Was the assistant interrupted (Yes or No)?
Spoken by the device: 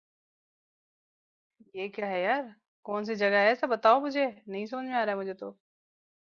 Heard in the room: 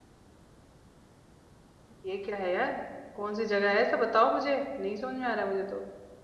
No